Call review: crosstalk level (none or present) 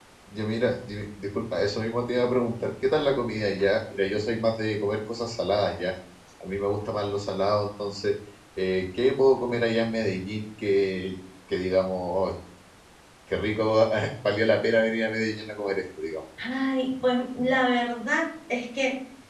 none